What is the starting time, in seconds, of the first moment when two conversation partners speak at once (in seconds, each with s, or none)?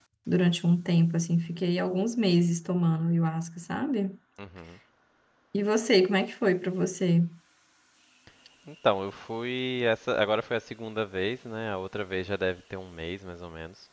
none